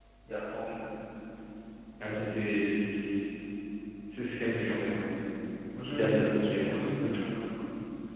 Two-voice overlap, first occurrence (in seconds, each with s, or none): 5.8 s